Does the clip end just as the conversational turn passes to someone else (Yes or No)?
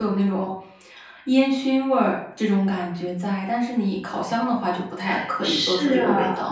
Yes